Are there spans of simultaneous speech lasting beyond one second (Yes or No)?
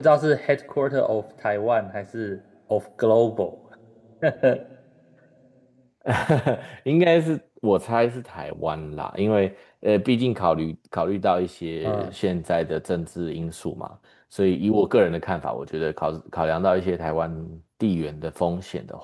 No